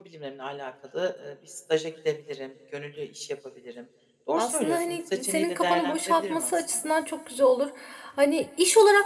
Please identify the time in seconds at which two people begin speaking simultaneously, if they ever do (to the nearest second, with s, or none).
4 s